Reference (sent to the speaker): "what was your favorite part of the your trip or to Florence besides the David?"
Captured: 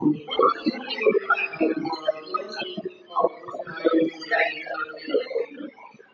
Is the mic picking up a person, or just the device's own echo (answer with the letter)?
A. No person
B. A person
A